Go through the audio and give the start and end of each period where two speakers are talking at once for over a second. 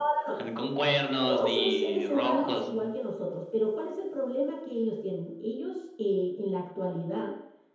1.3-2.9

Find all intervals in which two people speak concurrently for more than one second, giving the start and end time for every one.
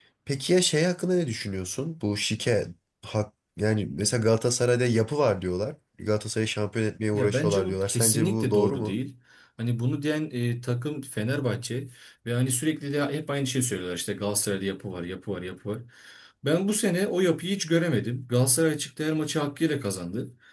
7.1-8.9

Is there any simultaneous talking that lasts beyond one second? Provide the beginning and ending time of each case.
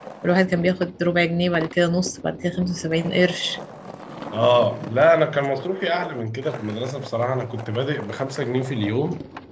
none

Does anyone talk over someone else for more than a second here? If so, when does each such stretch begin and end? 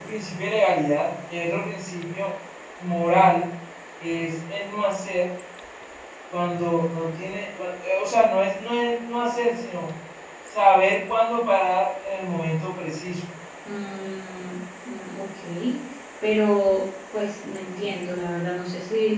none

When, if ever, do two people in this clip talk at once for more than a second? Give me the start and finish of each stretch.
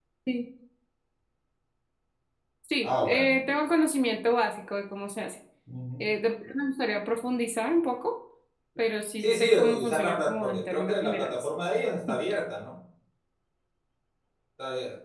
9.2-11.5

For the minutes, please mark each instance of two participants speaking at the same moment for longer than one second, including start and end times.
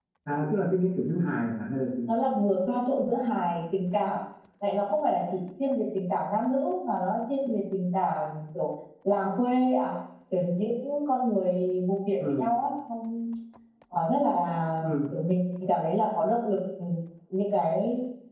none

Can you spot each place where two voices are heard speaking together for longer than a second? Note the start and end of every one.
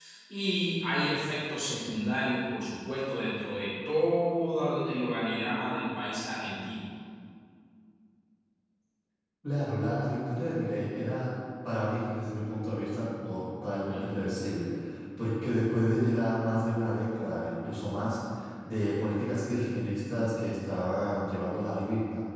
none

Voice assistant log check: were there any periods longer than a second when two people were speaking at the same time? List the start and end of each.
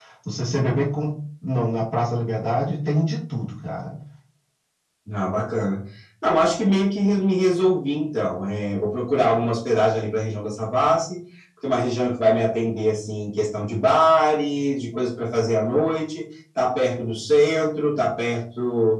none

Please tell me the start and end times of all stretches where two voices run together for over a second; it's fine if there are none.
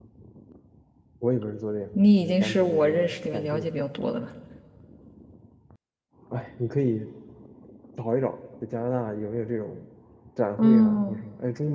1.9-3.7

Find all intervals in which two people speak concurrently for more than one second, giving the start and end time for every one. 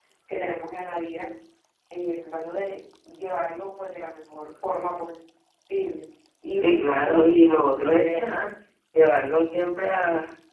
6.5-8.4

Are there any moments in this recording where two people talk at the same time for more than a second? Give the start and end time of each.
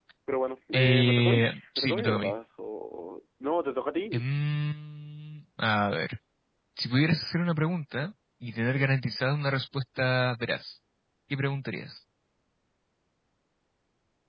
0.7-2.3

